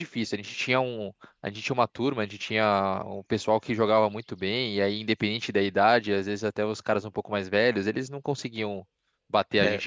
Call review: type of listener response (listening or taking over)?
taking over